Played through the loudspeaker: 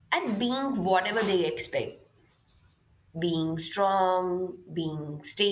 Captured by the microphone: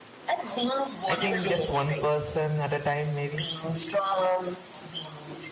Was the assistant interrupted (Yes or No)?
Yes